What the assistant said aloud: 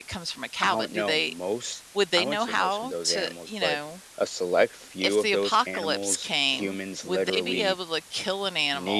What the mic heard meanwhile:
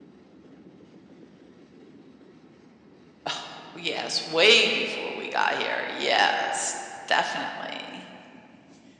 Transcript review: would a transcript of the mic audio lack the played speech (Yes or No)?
Yes